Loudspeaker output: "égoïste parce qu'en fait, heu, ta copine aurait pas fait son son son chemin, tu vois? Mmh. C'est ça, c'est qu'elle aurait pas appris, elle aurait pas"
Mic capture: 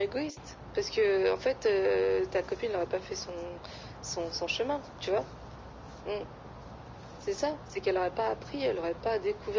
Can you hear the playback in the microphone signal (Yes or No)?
Yes